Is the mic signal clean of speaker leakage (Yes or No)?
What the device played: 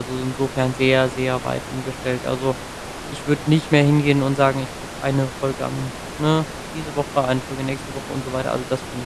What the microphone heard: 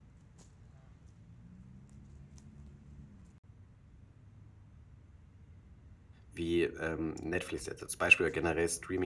Yes